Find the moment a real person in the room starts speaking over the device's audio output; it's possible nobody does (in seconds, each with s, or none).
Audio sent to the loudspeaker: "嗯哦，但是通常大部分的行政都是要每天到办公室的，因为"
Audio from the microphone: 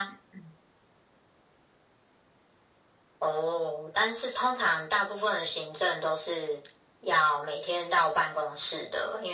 none